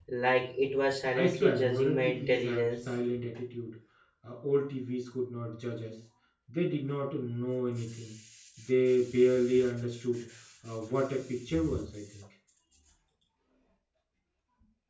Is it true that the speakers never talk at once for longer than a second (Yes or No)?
No